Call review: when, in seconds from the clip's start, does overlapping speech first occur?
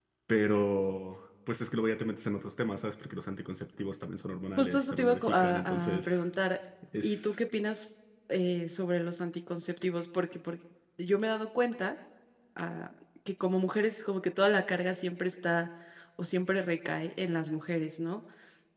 4.6 s

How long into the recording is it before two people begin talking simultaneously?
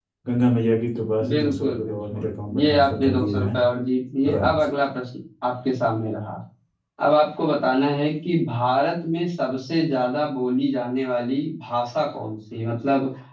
1.3 s

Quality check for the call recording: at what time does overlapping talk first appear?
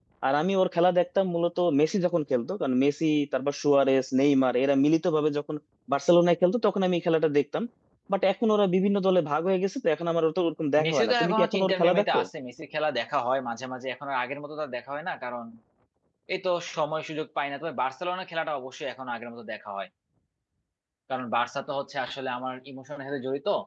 10.8 s

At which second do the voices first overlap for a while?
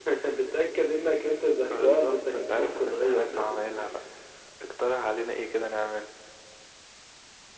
1.7 s

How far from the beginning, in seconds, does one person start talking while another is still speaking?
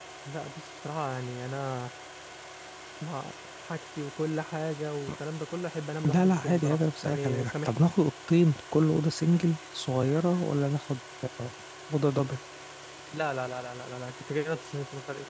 6.1 s

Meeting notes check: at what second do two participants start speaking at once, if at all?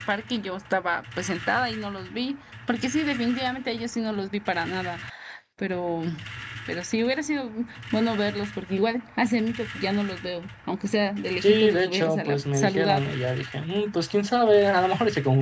11.4 s

